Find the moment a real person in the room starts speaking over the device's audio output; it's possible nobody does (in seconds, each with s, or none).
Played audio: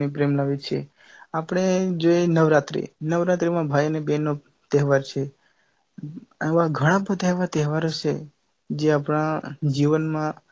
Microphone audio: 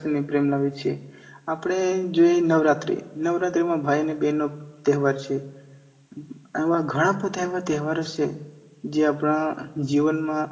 none